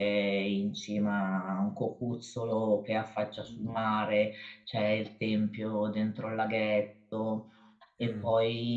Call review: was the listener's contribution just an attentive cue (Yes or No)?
Yes